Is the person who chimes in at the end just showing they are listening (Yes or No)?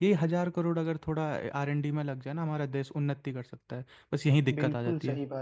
No